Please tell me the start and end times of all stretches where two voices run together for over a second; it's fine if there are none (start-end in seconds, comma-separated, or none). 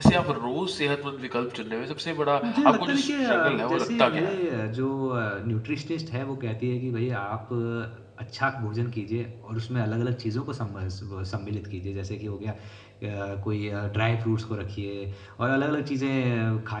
2.4-4.4